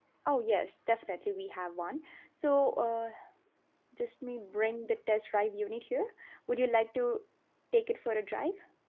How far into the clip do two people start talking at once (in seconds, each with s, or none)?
none